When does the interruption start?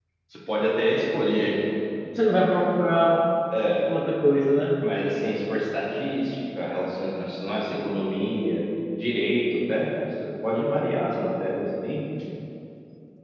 none

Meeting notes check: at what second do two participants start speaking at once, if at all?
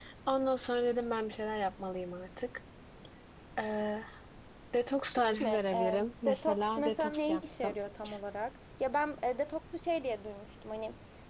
5.4 s

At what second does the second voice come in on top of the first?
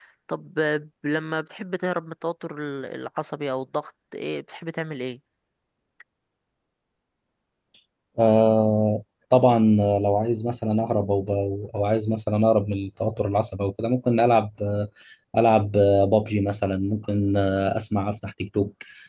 none

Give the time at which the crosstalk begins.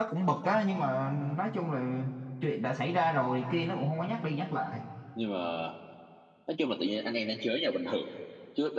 none

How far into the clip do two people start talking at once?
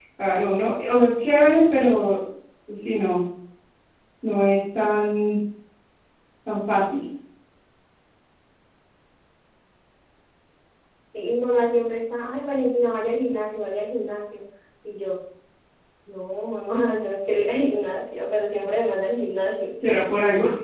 none

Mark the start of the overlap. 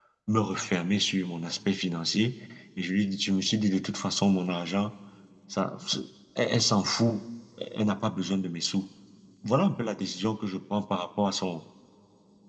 none

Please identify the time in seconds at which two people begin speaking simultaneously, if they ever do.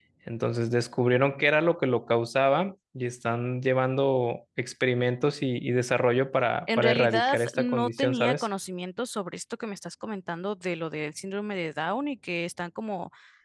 6.7 s

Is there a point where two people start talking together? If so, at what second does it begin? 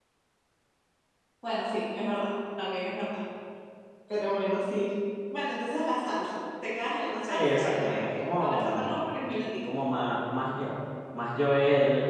7.2 s

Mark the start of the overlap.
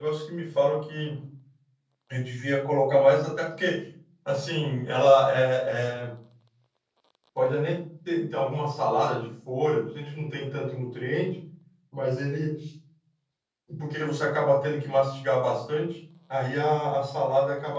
none

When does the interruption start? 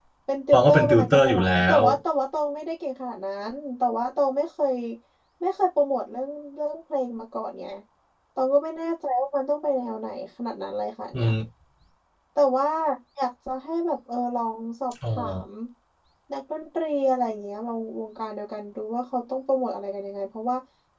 0.5 s

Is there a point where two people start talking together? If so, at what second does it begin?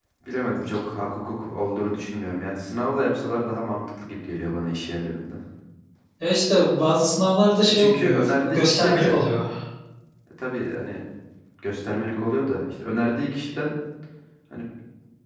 7.7 s

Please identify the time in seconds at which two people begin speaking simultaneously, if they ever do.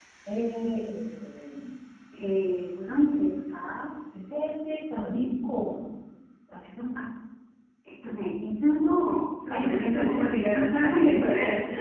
9.5 s

